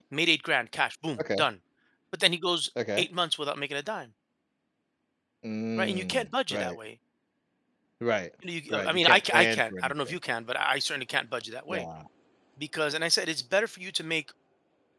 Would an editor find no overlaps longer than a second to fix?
No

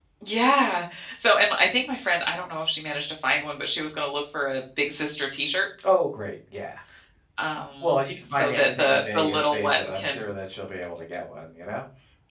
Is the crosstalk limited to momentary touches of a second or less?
No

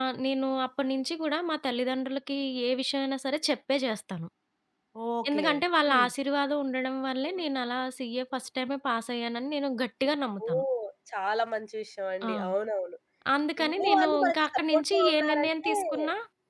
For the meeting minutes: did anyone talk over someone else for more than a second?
Yes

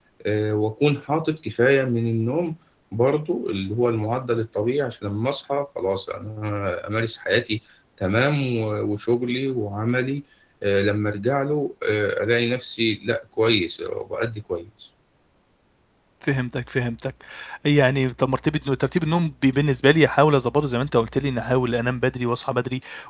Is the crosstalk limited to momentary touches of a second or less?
Yes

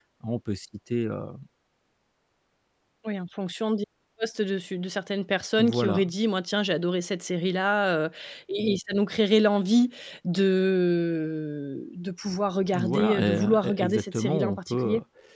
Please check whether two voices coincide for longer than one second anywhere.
Yes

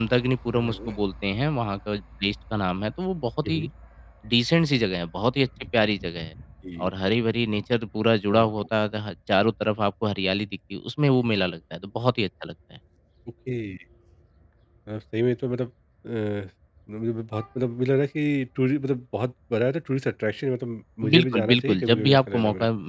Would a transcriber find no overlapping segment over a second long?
No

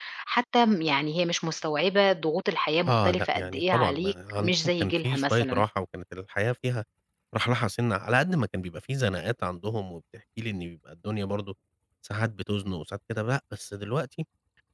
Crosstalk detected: Yes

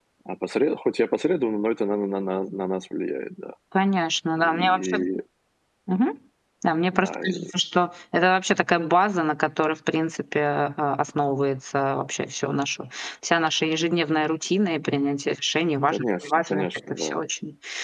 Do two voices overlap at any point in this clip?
Yes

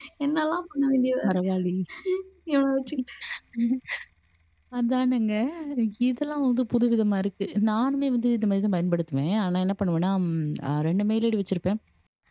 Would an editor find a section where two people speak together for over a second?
No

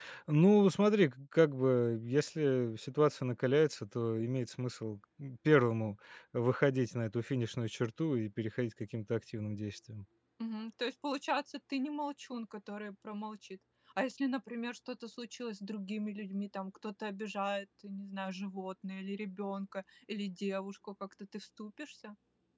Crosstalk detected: No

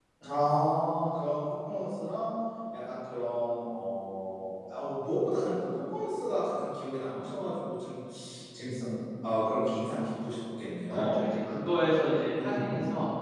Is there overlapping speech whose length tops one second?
No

